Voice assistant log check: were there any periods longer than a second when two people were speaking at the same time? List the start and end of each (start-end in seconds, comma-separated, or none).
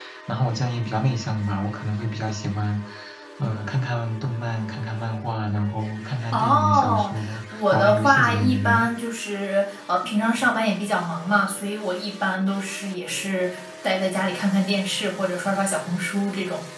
6.3-8.8